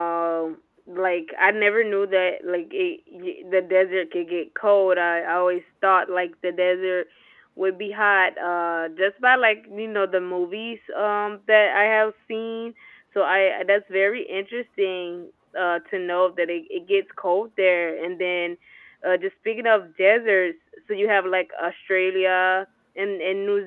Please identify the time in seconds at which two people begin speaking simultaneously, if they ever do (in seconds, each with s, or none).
none